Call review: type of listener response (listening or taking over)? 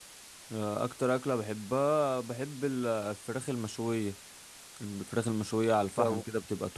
listening